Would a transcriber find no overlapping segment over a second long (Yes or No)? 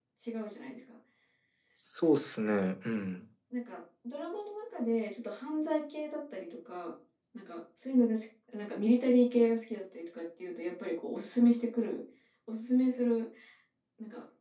Yes